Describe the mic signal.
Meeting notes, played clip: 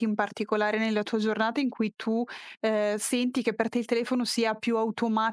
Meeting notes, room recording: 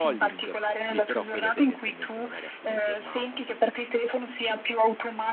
both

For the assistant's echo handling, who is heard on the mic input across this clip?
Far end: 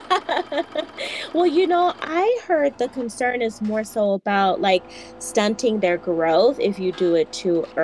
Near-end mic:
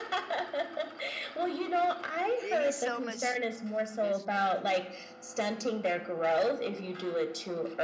both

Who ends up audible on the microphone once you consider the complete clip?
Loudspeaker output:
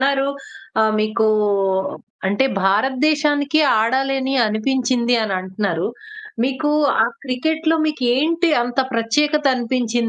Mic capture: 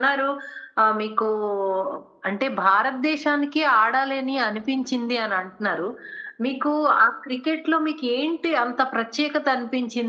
echo only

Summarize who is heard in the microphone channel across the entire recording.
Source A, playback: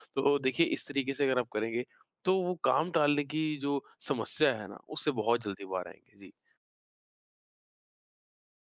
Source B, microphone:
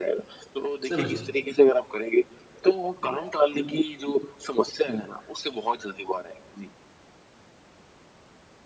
both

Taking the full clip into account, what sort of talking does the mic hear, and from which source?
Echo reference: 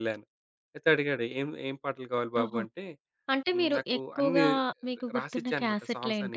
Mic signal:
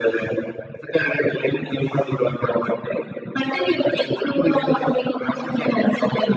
echo only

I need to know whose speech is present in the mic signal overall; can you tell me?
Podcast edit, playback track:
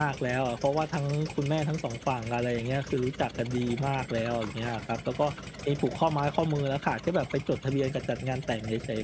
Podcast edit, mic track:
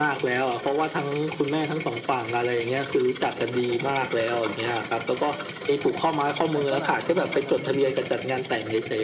both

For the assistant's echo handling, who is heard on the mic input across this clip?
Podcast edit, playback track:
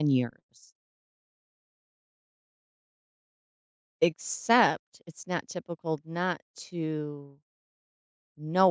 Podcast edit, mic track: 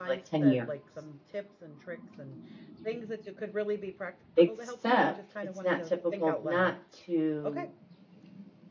both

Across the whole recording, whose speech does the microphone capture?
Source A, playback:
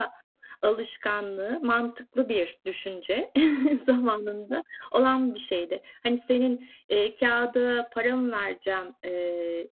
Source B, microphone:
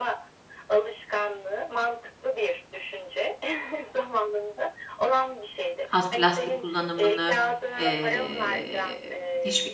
both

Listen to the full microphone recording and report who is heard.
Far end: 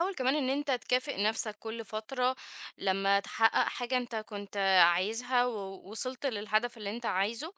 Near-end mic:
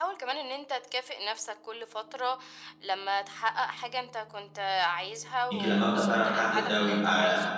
both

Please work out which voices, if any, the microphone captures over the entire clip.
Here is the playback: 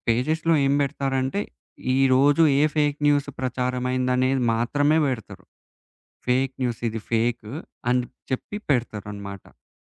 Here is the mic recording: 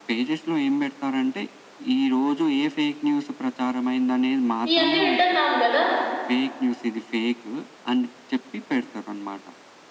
both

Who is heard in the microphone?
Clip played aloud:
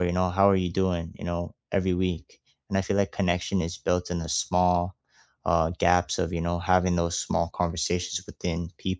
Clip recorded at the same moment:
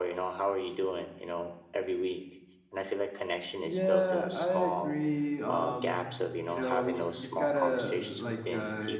both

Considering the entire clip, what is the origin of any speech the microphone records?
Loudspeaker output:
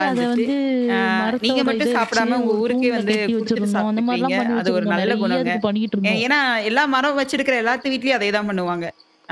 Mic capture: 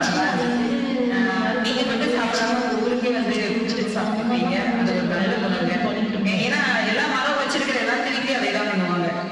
echo only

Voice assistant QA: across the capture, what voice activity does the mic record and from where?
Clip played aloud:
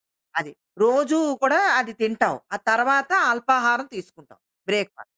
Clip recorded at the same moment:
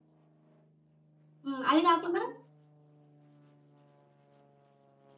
user only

